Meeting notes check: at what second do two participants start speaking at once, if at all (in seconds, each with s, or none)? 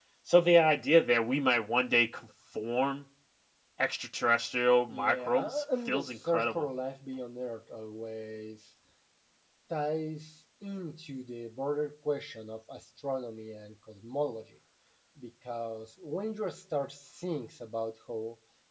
4.9 s